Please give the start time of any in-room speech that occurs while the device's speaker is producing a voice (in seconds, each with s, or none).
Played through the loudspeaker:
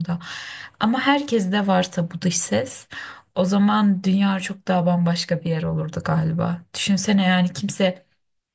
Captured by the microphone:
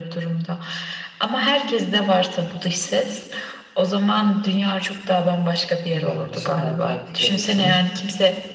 5.9 s